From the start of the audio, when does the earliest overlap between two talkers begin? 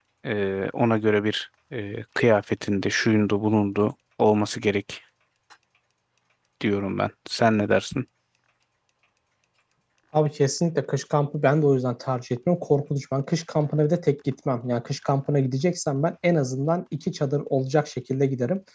none

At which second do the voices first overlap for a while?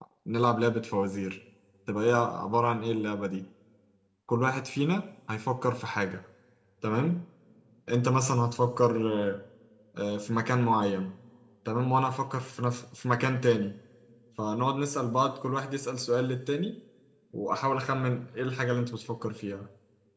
none

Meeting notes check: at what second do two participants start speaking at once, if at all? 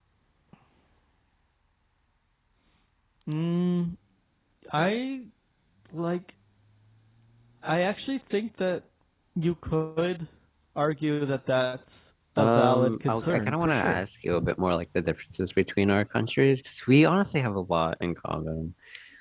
12.4 s

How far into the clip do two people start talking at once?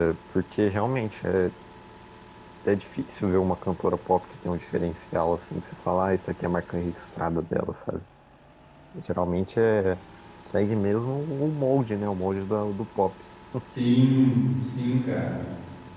none

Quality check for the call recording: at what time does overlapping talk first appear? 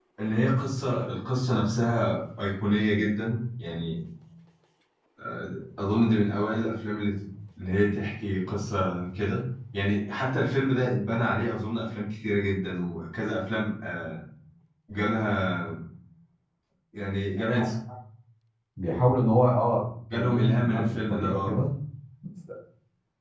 20.1 s

